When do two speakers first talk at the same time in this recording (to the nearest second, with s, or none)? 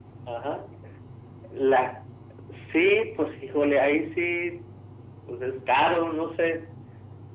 none